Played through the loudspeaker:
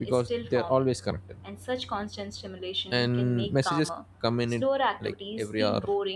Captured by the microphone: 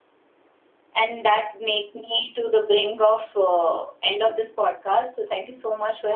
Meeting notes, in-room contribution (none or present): present